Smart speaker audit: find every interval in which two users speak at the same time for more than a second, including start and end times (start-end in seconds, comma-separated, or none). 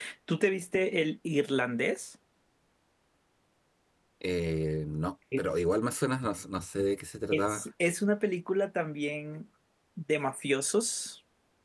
none